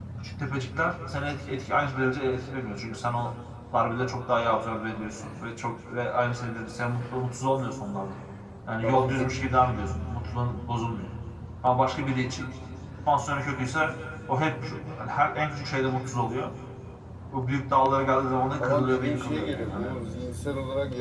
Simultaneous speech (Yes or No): Yes